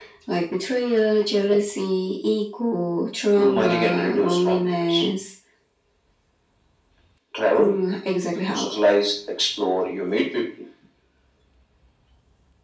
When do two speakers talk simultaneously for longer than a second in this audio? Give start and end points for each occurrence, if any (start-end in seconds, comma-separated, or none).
3.4-5.0